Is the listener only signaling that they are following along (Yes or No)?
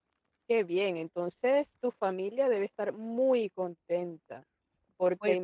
Yes